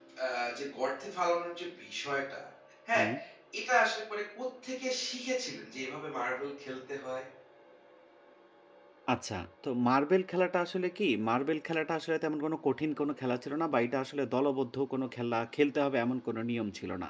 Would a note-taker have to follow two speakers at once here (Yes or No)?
No